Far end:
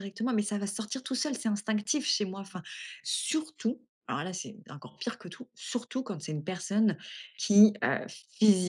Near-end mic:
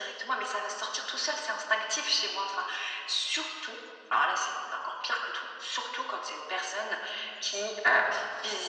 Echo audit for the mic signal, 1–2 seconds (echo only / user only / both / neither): echo only